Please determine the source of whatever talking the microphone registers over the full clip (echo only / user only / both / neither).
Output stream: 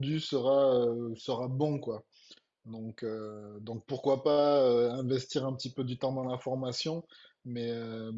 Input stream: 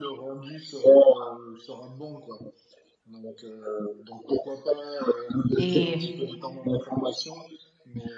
both